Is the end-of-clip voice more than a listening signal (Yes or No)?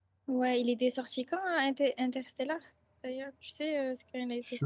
Yes